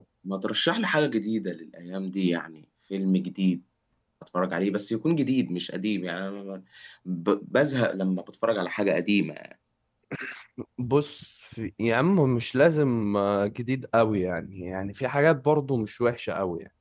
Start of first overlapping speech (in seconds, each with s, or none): none